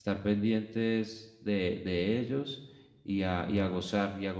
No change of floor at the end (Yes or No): Yes